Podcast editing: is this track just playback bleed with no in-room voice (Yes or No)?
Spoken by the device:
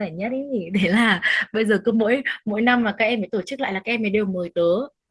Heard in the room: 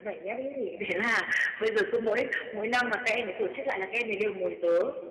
Yes